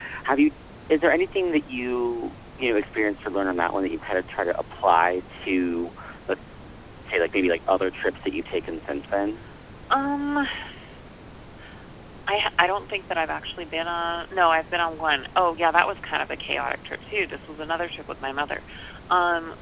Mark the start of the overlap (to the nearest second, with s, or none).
none